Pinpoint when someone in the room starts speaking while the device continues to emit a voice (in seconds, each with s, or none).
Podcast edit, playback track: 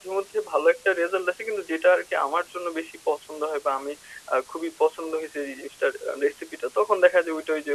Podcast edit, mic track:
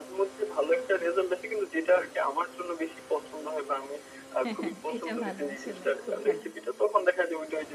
4.4 s